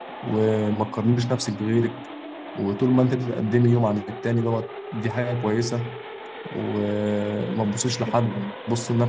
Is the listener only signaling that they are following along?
Yes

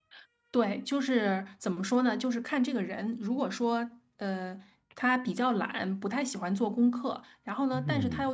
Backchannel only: Yes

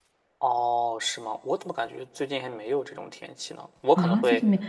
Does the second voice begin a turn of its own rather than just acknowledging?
Yes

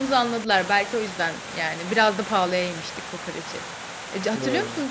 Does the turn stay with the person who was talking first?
Yes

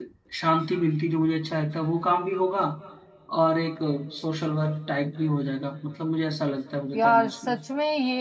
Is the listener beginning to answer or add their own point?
Yes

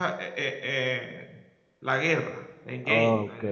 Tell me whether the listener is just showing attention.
No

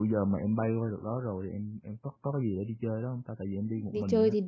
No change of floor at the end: No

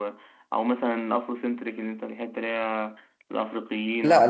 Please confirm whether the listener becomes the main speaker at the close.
Yes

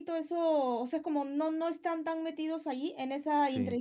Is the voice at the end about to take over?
No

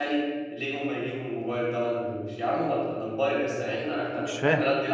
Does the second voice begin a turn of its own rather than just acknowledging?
No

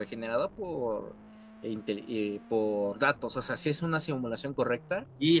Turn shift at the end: Yes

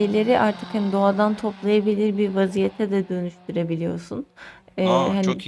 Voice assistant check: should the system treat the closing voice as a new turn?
Yes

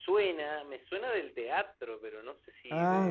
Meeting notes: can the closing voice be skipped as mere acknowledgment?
No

